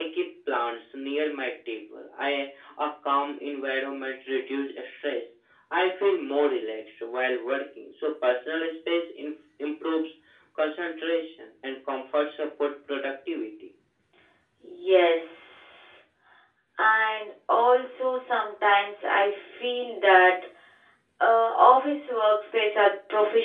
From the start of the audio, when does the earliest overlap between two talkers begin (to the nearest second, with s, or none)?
none